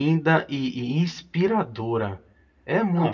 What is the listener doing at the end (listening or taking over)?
taking over